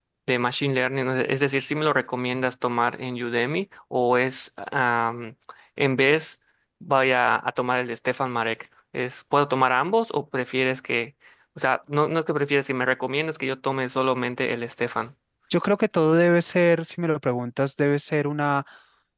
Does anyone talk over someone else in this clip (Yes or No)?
No